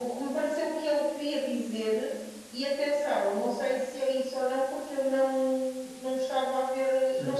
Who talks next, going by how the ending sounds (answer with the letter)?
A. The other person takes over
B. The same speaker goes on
B